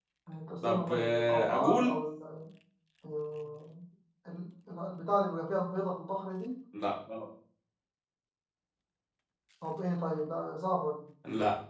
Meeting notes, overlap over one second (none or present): present